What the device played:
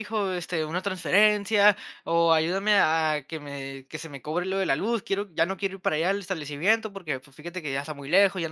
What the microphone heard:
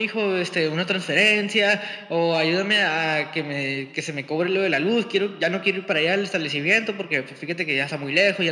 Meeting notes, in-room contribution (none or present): none